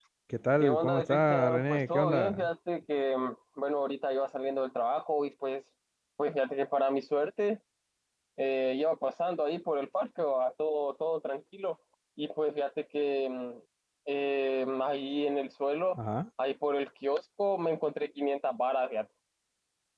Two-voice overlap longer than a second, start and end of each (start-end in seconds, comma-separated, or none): 0.6-2.5